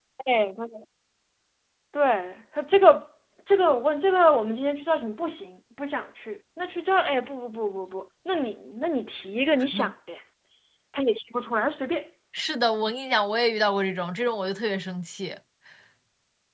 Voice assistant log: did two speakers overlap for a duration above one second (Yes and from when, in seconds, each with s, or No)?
No